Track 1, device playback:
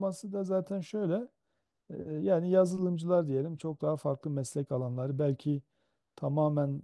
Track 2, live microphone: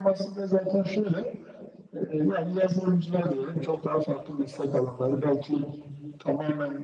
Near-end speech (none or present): none